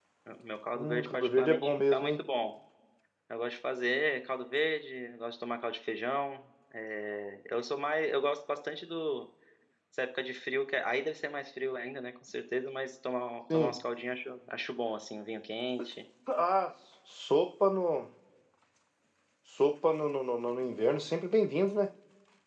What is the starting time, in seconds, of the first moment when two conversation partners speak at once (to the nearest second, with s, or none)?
1 s